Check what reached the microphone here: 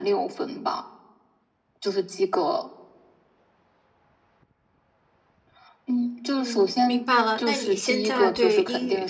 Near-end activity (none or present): present